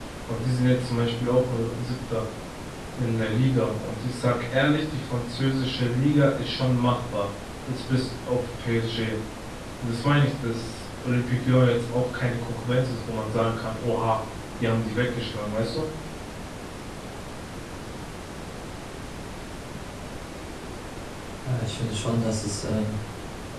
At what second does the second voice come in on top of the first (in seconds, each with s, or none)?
none